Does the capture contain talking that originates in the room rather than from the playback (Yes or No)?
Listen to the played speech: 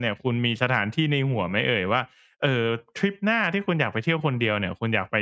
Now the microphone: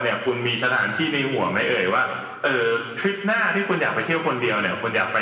No